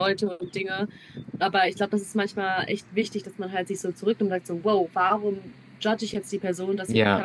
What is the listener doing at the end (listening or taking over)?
listening